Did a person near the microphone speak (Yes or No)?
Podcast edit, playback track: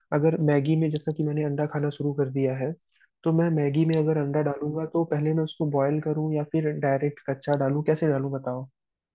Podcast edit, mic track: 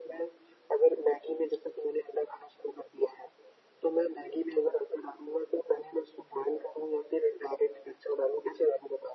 No